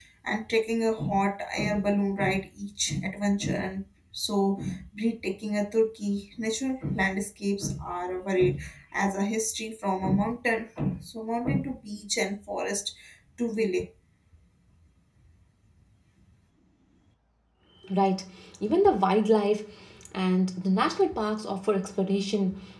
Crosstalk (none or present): none